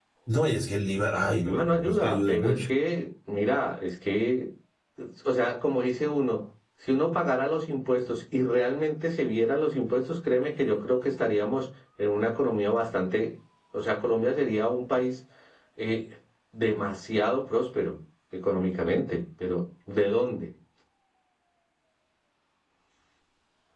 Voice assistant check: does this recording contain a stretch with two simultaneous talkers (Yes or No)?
Yes